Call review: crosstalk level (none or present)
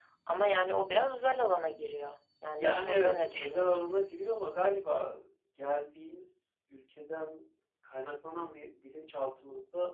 present